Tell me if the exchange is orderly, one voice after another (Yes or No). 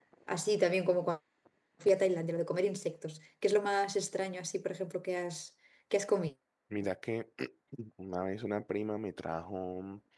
Yes